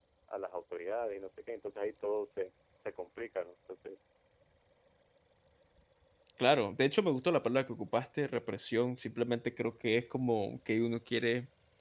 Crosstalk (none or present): none